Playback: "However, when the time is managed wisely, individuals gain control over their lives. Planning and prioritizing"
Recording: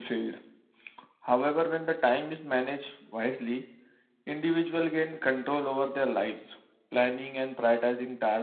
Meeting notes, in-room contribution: none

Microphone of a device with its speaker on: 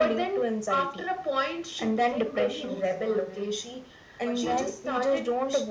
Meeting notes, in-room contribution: present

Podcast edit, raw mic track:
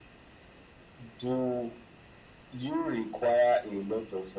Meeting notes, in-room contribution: none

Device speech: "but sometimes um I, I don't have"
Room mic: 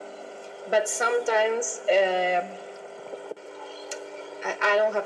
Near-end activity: none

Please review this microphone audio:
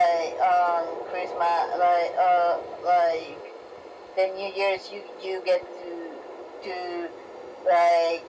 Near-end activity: none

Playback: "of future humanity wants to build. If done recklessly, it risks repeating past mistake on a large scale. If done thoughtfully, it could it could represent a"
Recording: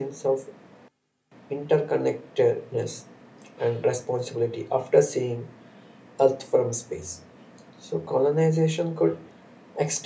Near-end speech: present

